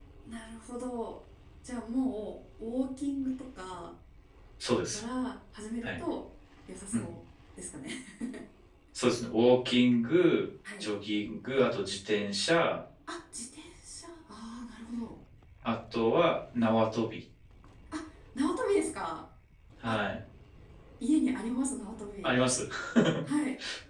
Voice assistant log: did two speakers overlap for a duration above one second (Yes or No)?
No